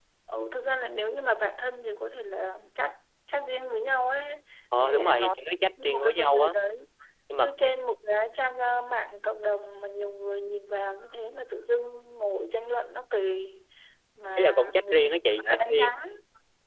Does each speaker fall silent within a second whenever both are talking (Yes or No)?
No